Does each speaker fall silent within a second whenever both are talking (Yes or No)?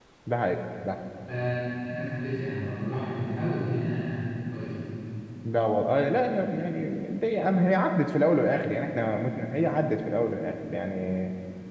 Yes